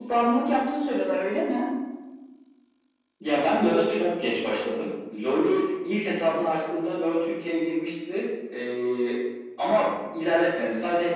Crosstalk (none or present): none